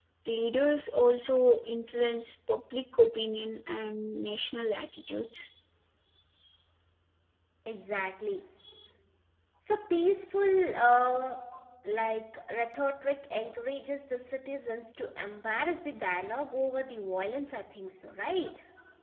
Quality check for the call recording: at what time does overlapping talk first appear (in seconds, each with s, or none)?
none